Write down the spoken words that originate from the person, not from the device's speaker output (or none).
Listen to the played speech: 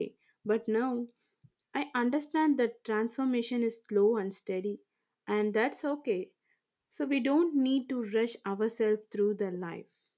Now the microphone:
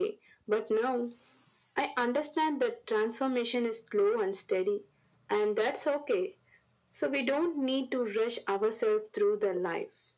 none